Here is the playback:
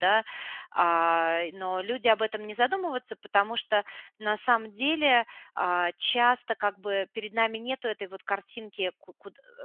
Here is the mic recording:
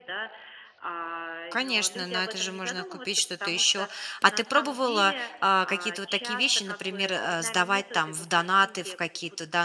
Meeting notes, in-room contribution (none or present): present